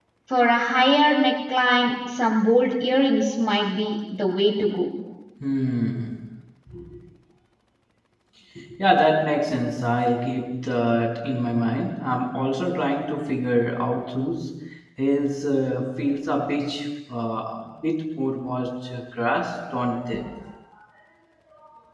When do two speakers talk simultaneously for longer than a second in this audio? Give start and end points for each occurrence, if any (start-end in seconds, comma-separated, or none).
none